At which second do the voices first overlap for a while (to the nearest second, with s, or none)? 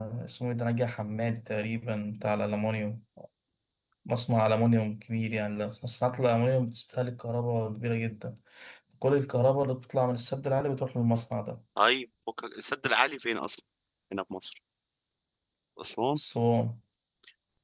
none